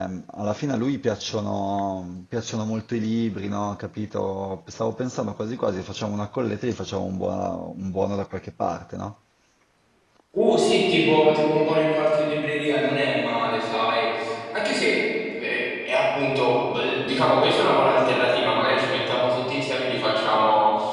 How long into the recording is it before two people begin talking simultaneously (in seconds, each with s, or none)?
none